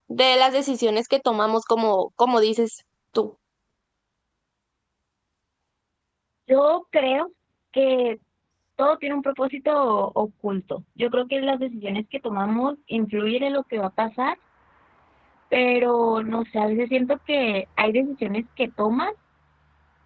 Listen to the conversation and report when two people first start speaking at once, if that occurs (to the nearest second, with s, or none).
none